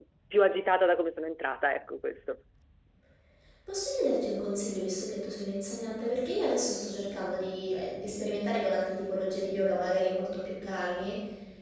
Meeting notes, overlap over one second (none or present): none